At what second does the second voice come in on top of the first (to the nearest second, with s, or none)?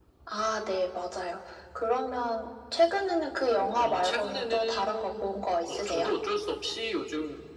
4 s